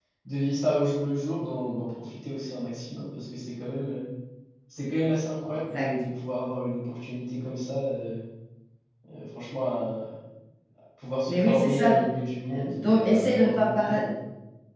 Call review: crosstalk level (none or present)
present